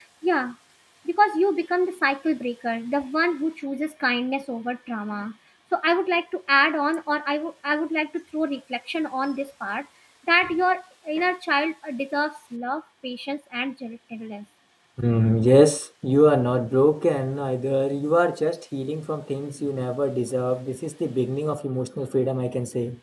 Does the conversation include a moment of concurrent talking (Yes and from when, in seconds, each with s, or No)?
No